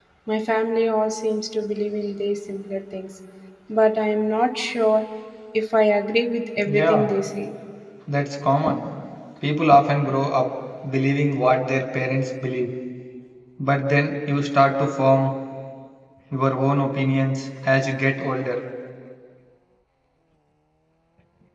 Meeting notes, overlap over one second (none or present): none